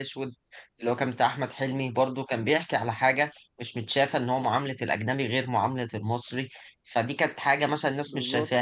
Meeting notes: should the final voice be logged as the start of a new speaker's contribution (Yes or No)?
No